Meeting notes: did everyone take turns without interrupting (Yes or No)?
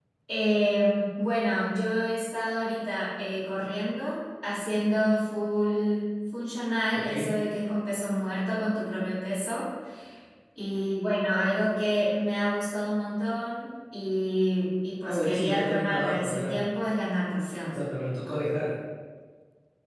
No